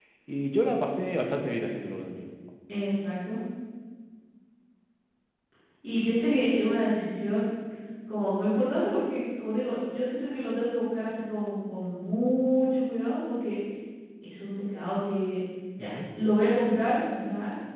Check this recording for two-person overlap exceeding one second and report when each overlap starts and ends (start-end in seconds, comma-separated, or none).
none